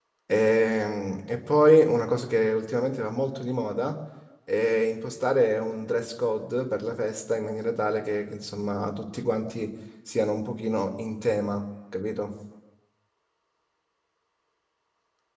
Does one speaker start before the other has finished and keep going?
No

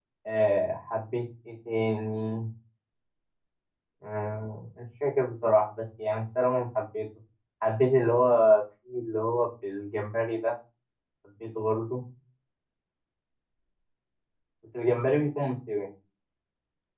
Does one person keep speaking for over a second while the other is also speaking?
No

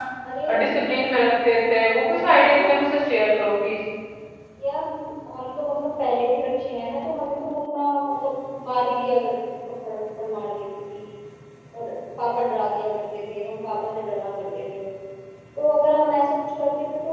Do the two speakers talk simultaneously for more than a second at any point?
No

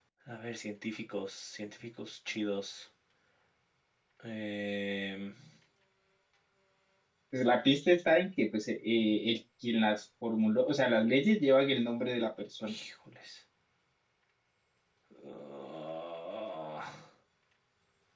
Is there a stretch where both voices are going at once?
No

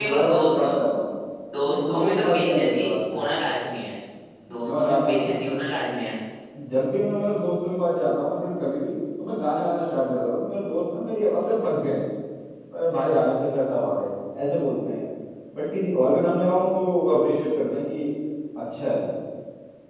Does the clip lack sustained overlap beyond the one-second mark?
No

